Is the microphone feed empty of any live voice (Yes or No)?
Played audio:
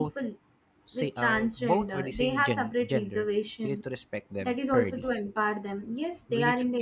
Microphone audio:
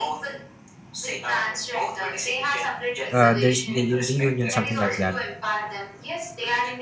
No